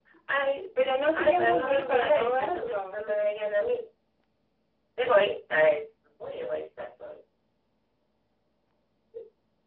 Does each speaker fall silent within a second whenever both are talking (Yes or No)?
No